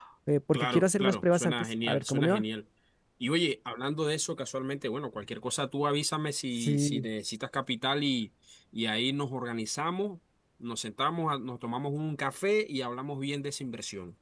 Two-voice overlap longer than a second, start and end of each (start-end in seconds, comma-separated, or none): 0.5-2.4